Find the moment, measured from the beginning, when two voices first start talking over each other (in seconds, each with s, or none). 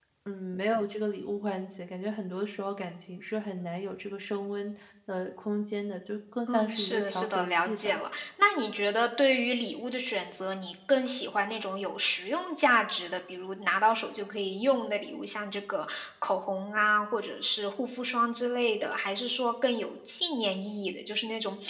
6.5 s